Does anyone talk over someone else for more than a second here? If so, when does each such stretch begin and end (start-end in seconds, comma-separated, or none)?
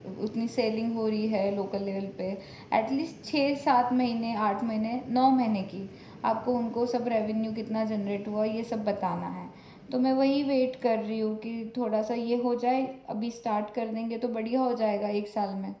none